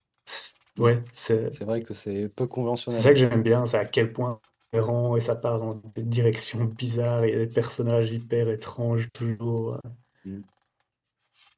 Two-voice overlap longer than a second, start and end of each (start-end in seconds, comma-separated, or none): none